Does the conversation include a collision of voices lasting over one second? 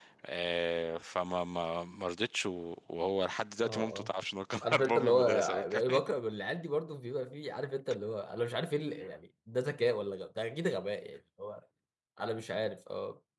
Yes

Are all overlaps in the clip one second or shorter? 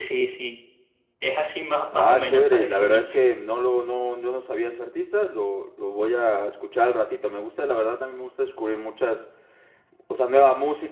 No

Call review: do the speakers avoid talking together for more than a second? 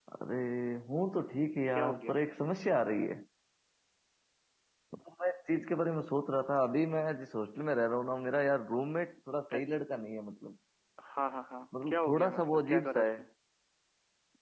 No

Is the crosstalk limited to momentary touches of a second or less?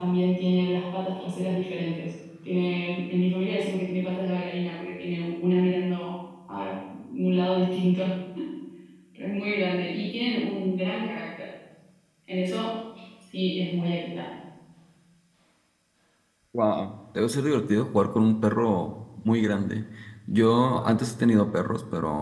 Yes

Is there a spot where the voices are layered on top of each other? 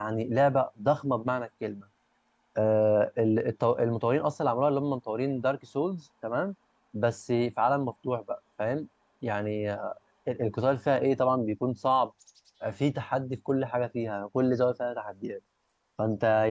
No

